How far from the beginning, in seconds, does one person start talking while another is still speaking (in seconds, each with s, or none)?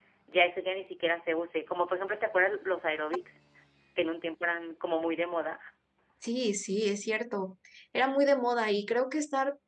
none